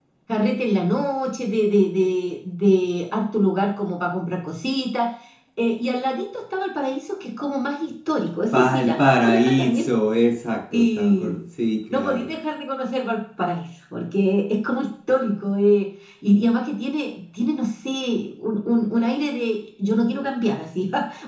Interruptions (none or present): present